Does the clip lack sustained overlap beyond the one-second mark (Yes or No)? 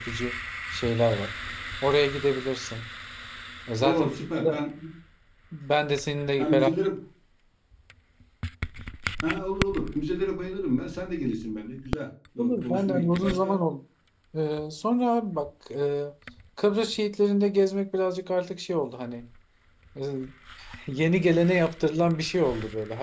No